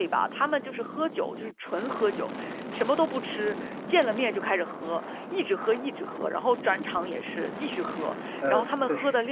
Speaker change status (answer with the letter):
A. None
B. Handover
A